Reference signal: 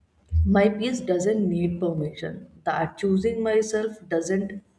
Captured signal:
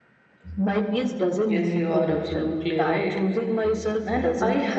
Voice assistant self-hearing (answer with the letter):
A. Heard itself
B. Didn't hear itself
A